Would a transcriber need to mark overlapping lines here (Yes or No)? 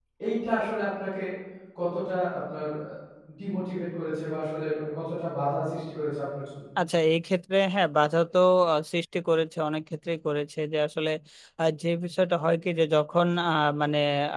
No